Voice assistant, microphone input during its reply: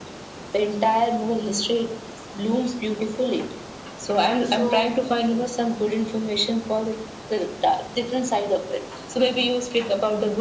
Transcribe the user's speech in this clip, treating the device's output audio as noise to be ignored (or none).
So